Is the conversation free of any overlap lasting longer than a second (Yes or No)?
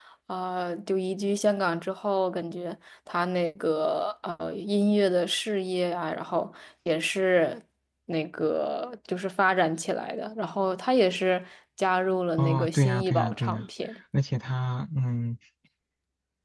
No